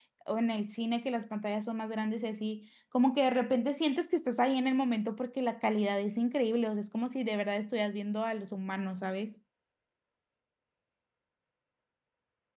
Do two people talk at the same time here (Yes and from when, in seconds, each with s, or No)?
No